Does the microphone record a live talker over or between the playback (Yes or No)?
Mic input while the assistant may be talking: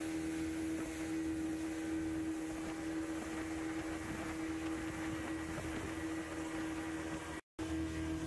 No